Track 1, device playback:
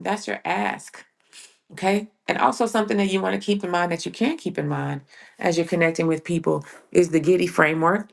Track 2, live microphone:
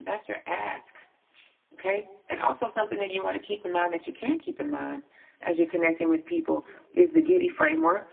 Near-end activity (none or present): none